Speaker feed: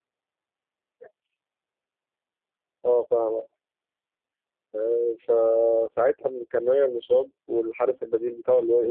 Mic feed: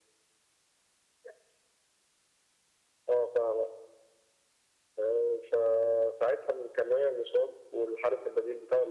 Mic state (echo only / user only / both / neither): echo only